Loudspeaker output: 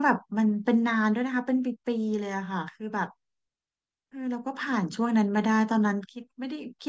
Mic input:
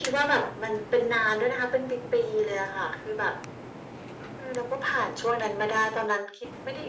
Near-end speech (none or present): none